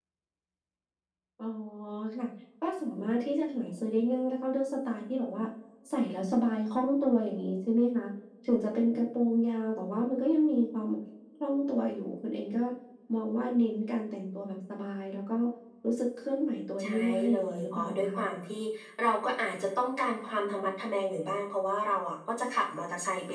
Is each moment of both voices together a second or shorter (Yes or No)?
No